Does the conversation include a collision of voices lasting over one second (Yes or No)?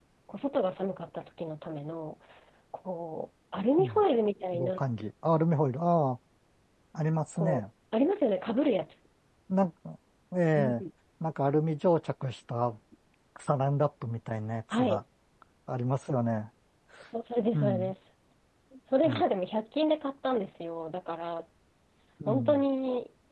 No